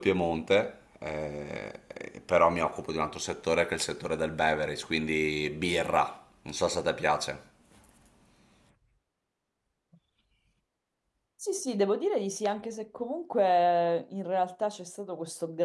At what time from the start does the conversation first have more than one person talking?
none

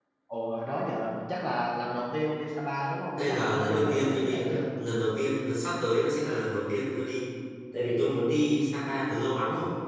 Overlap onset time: 3.1 s

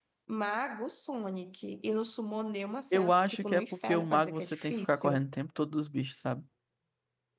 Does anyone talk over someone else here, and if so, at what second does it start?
2.9 s

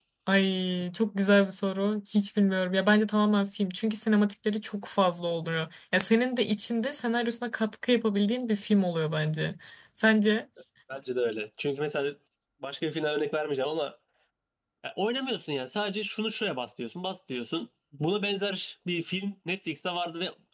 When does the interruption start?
none

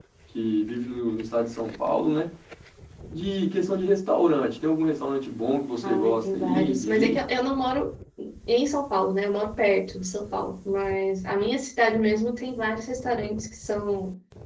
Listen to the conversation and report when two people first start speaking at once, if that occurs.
5.8 s

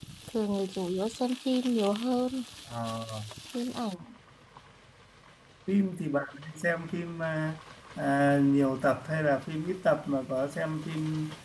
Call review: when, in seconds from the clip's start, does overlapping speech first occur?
none

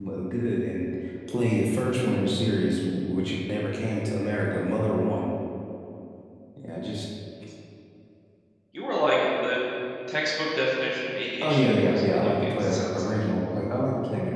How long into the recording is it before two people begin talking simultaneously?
11.4 s

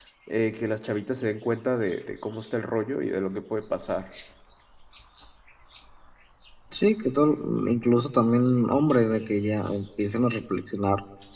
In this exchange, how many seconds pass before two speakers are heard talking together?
none

